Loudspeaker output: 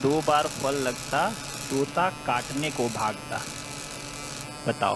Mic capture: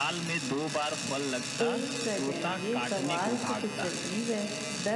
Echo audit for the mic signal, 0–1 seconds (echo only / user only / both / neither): echo only